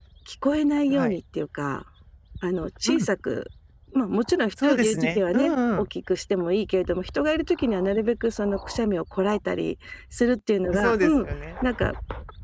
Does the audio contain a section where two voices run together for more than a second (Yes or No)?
Yes